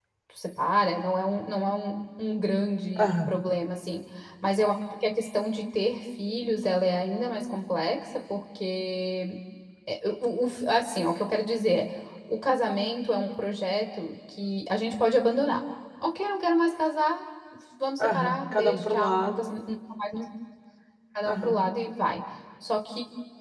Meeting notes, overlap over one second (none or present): present